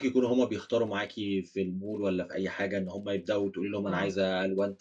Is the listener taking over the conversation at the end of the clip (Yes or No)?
No